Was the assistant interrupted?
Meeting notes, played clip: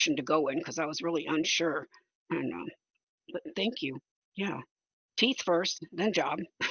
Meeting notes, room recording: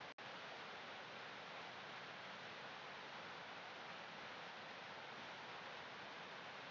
No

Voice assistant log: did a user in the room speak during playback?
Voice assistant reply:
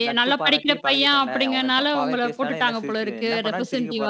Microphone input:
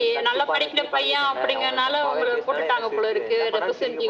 No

